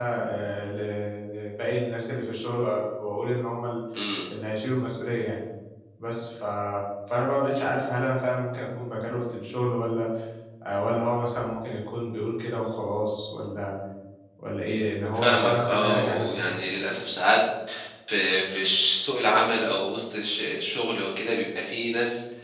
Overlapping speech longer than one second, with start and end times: 15.1-16.6

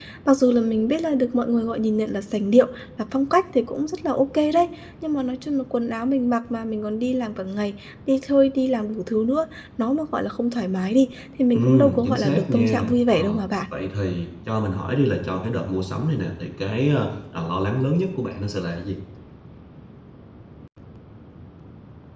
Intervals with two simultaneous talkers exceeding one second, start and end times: 11.5-13.4

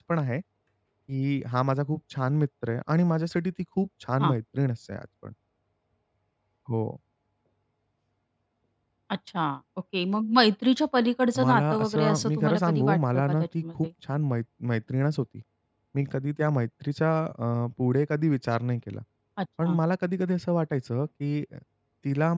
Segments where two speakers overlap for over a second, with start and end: 11.4-13.6

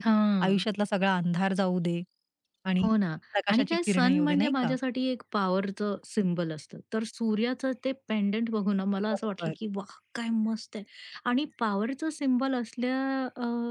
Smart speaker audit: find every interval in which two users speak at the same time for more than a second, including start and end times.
3.5-4.7

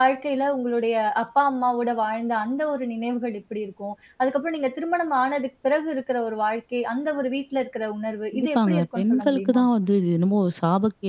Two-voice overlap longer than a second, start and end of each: 8.3-9.6

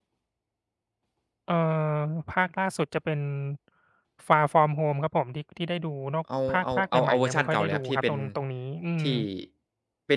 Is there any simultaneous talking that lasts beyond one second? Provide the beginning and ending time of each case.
6.5-8.2

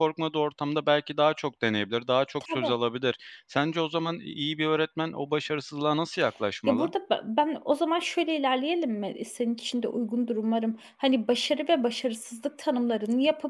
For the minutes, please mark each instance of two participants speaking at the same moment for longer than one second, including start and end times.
none

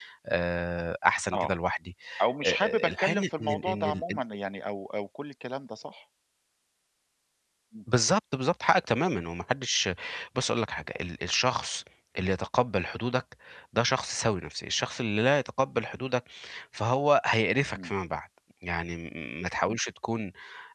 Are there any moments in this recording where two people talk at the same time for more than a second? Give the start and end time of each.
2.4-4.0

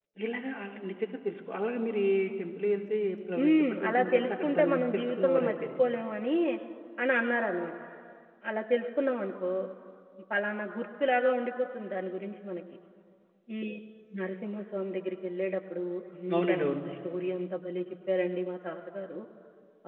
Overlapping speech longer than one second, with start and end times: 3.4-5.5

